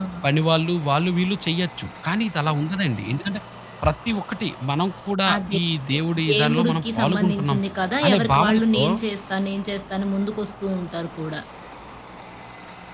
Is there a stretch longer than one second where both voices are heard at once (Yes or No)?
Yes